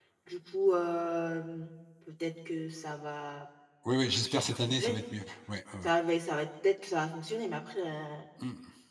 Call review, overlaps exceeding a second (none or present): none